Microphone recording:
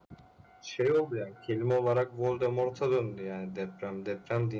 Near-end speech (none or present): present